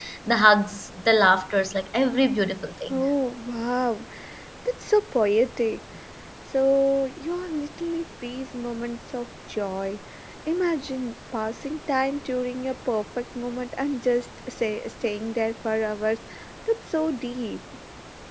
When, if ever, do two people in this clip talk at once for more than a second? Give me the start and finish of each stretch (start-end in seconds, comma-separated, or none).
none